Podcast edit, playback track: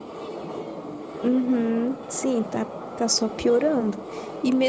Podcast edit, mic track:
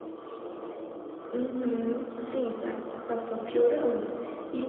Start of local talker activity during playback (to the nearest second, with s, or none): none